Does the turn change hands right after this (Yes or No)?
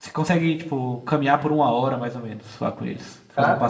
Yes